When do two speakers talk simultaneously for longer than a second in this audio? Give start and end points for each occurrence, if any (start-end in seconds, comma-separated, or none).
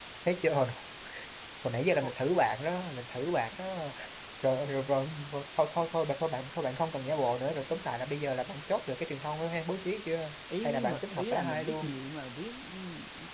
10.6-11.9